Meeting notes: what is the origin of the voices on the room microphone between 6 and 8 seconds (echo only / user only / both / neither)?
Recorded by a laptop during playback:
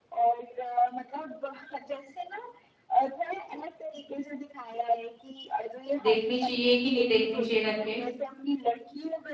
both